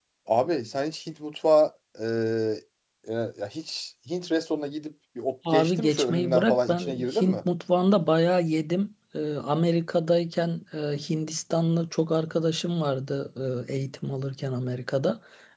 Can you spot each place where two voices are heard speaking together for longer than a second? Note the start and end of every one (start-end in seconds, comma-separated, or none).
5.5-7.4